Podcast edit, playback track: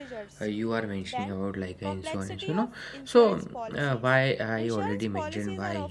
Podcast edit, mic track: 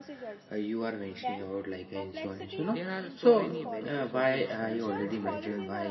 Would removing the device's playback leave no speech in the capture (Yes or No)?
No